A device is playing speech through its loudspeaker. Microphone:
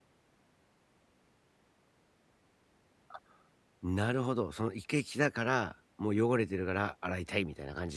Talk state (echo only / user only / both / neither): user only